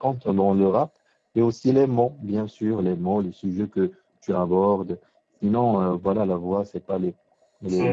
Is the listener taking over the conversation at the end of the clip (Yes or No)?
Yes